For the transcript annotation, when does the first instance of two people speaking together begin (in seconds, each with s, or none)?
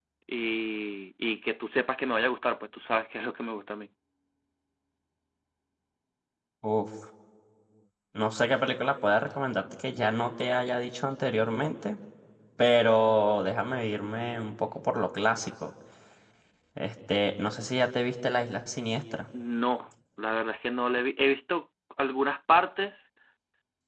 none